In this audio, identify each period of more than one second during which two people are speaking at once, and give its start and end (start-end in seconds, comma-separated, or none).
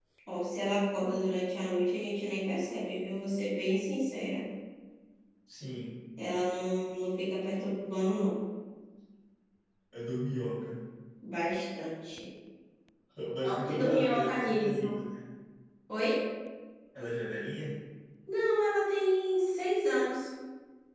13.6-15.0